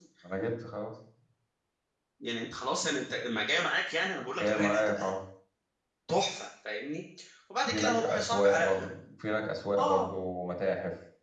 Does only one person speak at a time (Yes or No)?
No